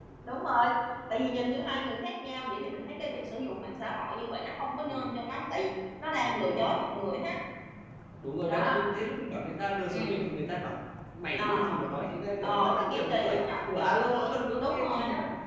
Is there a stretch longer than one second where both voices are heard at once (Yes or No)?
Yes